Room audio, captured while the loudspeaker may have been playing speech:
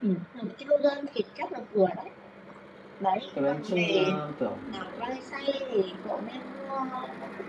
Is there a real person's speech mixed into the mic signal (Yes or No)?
Yes